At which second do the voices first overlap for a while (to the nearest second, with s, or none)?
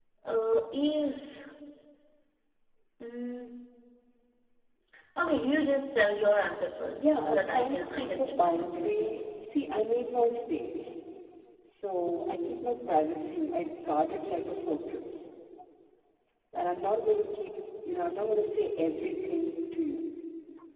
7 s